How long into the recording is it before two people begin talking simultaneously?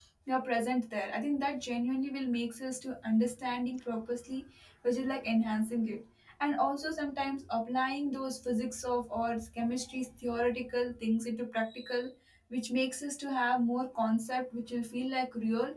none

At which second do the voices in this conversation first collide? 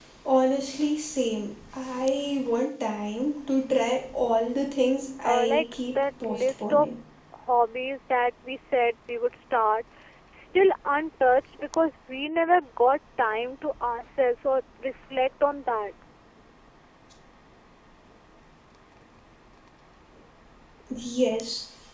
5 s

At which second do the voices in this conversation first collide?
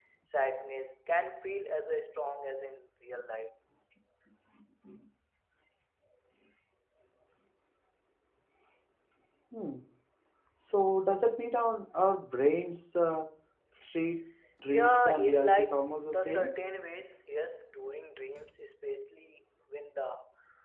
15 s

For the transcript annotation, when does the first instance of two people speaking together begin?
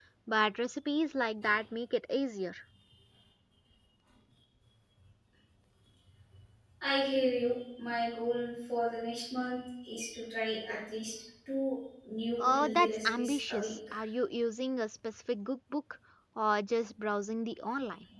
12 s

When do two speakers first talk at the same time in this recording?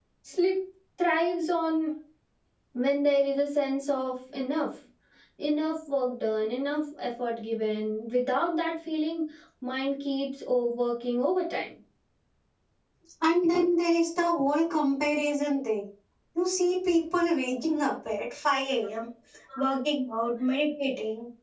none

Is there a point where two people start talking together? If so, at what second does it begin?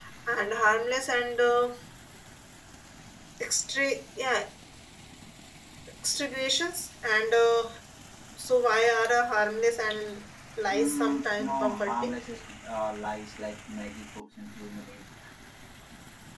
11 s

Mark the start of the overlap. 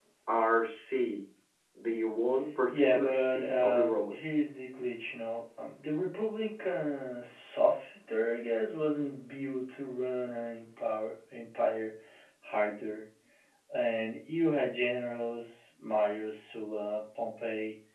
3 s

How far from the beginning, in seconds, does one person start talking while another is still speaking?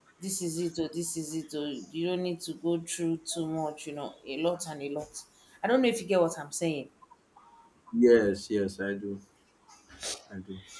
none

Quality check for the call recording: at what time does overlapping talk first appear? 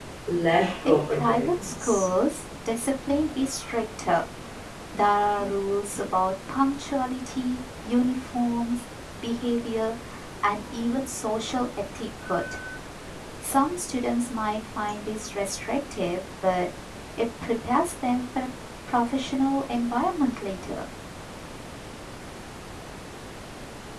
1 s

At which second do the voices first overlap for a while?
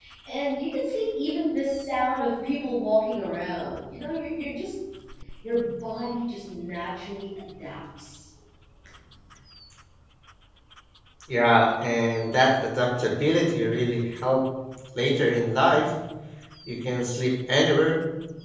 none

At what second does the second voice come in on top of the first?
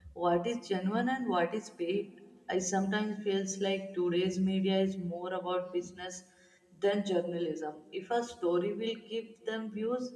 none

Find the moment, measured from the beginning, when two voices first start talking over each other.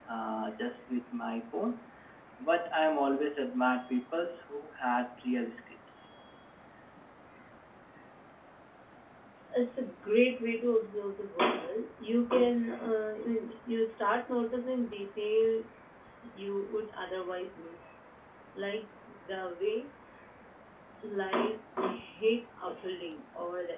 none

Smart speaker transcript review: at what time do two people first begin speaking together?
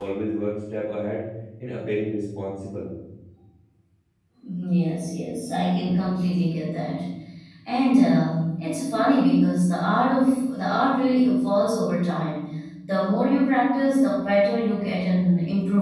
none

